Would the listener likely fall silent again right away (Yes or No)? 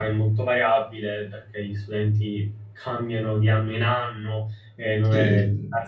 Yes